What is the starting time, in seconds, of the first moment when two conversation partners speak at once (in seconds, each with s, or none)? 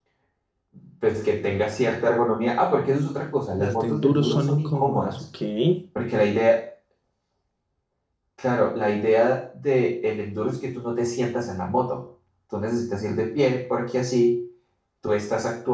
3.6 s